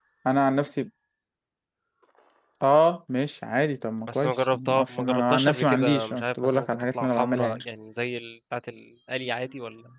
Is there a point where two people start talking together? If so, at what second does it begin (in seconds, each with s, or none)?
4.1 s